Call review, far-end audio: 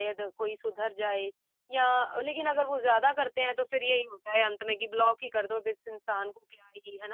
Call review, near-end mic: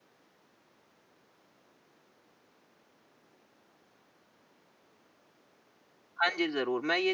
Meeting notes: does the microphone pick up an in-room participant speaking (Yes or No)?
Yes